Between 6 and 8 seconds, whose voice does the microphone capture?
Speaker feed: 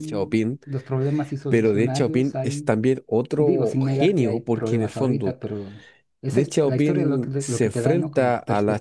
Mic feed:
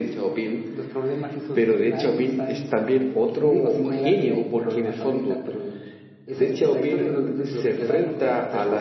echo only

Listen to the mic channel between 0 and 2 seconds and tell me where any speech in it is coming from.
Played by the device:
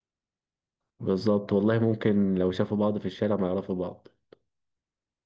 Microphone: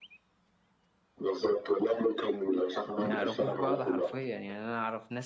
echo only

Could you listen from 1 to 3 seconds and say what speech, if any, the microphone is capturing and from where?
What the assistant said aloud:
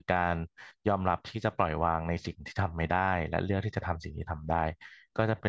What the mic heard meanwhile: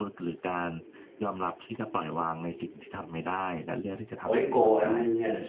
echo only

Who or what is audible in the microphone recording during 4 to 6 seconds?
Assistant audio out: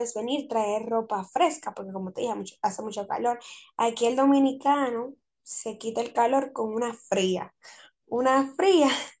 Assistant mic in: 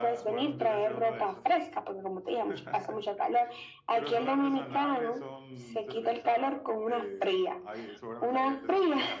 both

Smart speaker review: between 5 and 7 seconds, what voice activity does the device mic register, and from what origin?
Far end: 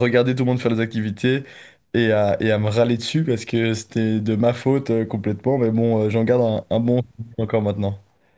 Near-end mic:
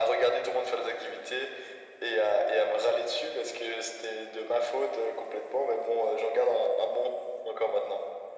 echo only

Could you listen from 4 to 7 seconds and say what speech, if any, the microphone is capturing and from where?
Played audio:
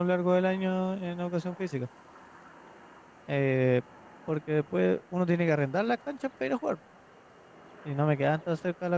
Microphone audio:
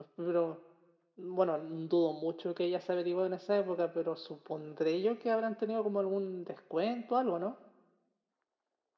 user only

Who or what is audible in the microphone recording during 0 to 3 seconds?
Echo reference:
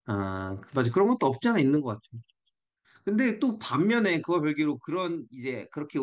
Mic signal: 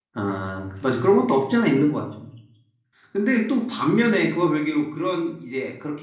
echo only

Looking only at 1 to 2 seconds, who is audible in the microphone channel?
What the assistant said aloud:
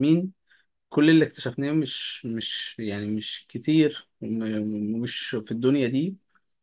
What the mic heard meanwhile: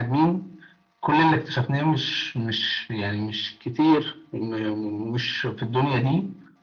echo only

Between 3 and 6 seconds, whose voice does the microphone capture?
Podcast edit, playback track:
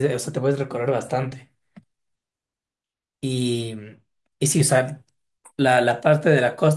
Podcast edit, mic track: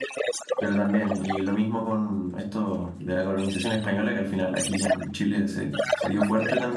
both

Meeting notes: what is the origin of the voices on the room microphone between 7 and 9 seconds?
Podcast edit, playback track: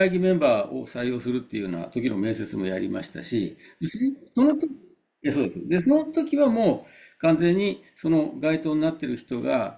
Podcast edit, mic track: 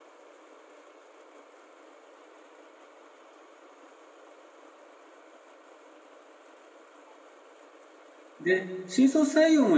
user only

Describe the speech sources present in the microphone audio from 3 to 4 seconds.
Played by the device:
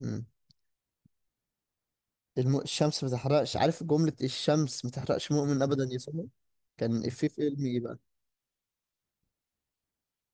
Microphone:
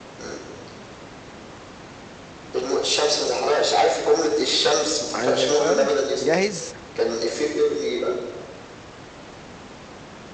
echo only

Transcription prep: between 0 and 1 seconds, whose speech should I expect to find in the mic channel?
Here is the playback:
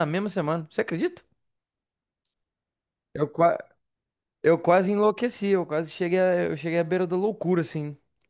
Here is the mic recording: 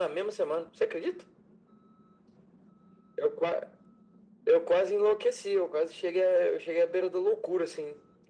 echo only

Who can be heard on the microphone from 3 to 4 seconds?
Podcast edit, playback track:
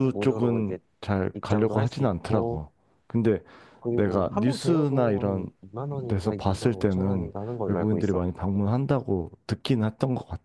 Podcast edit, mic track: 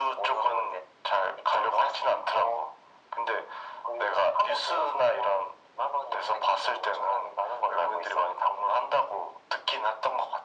echo only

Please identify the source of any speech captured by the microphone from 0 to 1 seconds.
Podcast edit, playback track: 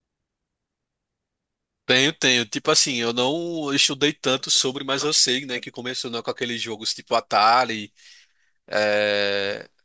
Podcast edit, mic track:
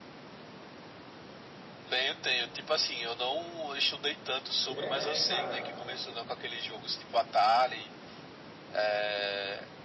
neither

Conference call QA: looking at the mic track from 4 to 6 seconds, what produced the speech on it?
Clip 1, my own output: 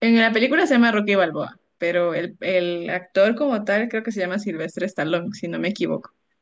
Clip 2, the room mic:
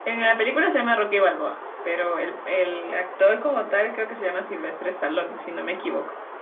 echo only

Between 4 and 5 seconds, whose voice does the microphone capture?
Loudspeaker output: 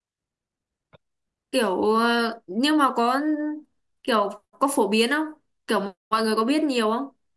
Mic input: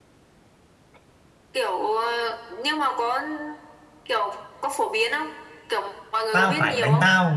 echo only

